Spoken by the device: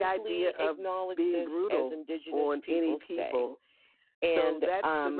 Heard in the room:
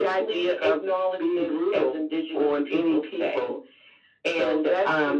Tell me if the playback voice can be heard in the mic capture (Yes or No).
Yes